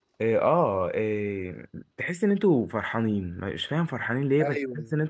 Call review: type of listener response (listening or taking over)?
taking over